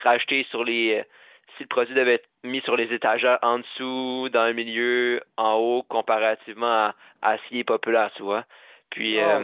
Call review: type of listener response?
taking over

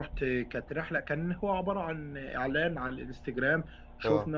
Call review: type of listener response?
listening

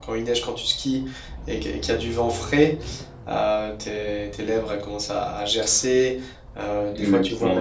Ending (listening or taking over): listening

